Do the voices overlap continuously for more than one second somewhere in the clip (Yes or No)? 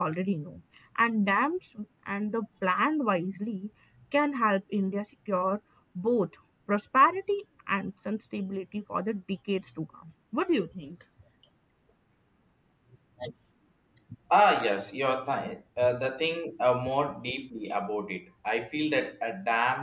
No